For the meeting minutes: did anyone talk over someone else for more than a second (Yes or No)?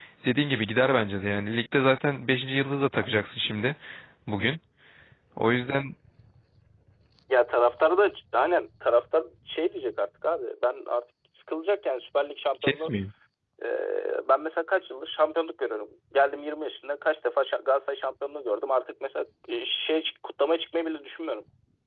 No